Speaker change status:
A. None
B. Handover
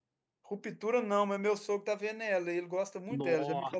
B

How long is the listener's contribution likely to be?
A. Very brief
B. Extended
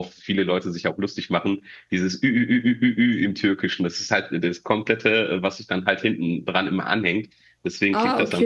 A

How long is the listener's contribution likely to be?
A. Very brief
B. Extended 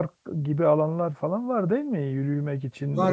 B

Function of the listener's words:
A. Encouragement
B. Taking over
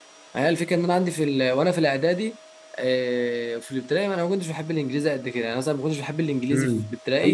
B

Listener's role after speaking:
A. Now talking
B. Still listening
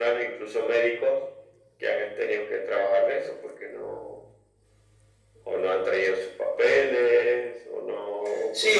A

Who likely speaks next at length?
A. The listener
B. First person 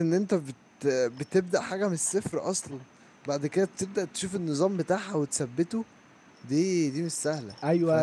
A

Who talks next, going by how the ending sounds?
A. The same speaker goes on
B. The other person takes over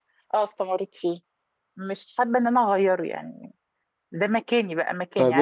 B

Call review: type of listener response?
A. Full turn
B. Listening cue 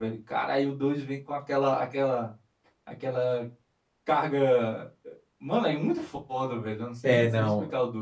A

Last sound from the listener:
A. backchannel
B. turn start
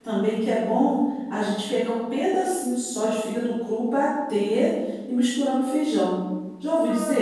B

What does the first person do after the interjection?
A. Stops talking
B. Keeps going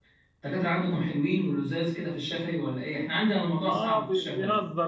A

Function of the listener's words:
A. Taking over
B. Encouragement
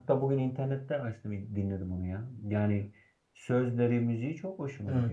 A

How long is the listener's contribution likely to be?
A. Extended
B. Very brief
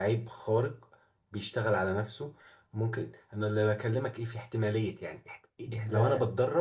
B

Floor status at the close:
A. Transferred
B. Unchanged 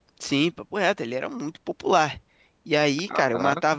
B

